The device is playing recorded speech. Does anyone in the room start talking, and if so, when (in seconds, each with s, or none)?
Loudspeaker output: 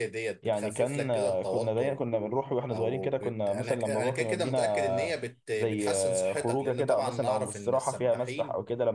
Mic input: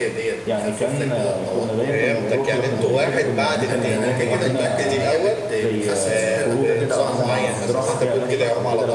1.9 s